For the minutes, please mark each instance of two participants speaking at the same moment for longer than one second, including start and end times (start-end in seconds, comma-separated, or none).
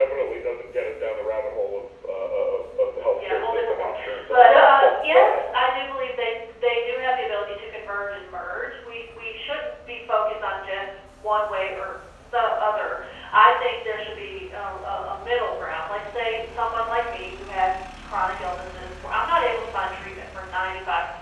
3.2-5.4